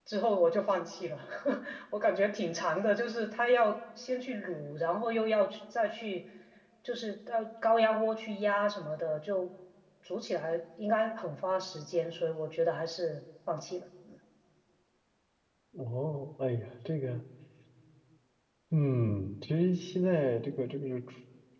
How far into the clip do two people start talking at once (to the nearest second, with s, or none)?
none